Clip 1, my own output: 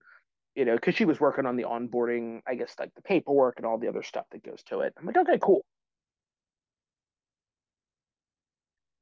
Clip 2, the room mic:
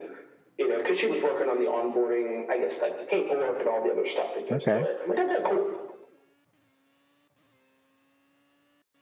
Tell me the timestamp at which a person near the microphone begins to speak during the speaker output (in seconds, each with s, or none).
4.5 s